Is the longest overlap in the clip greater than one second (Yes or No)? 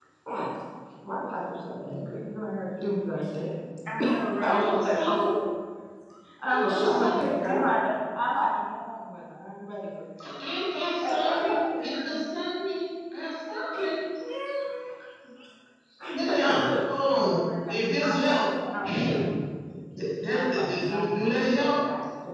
Yes